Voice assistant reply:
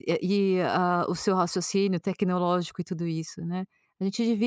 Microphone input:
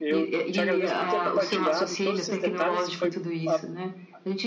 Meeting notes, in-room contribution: present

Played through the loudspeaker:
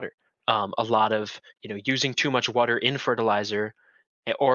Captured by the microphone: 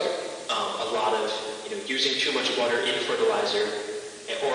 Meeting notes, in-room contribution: none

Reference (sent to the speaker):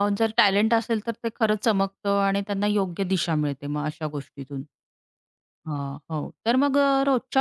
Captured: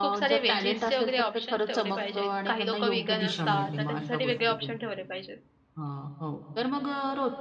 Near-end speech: present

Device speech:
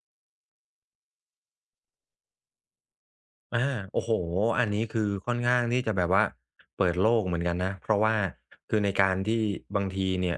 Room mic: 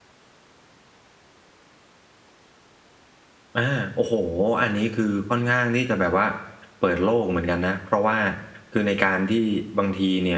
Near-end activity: none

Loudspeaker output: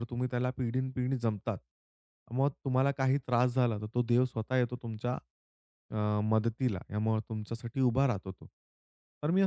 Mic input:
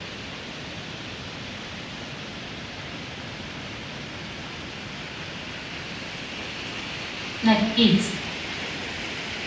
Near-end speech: present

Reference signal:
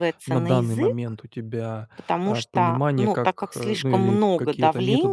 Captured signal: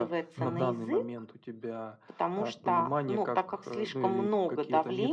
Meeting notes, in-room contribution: present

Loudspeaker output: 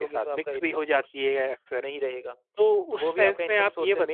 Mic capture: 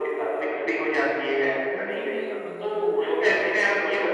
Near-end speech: present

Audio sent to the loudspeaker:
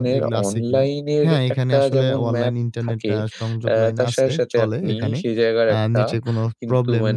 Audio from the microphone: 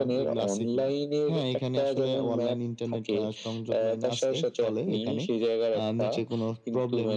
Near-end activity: none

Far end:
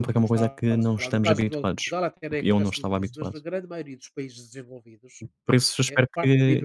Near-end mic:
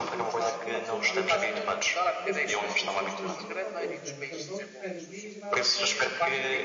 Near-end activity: present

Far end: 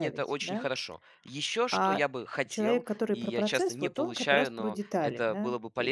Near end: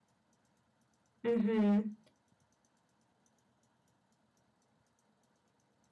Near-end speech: present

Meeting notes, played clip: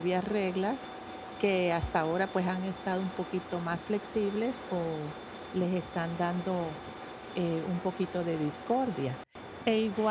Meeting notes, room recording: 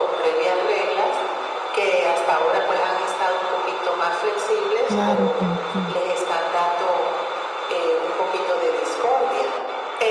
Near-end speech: present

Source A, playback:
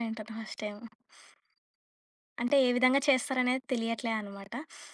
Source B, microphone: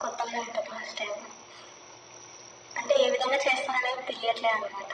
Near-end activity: none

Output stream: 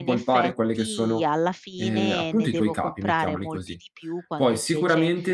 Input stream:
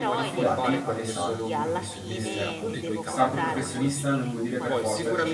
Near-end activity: present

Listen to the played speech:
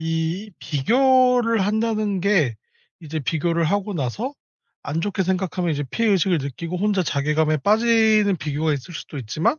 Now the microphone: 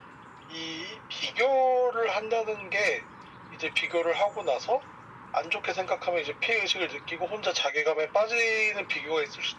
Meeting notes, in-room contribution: none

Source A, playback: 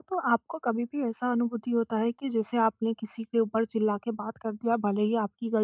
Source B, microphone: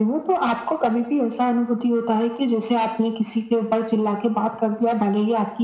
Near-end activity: none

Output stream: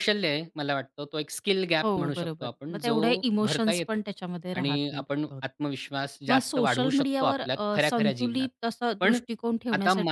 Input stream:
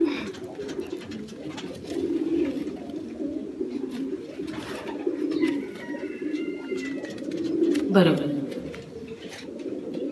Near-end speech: present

